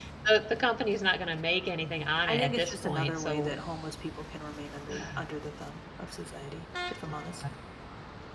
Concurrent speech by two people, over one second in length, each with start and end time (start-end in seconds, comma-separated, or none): 2.3-3.6